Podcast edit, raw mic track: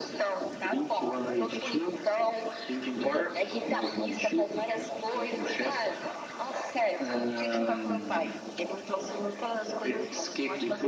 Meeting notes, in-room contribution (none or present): none